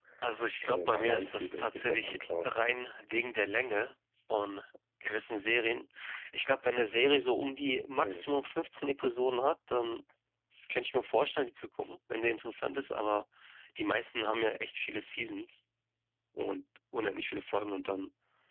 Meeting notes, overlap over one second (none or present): present